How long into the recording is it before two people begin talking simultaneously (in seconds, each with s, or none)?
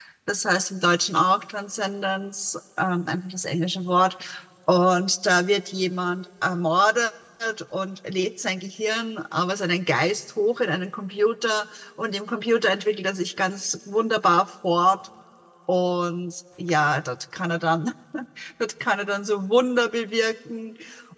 none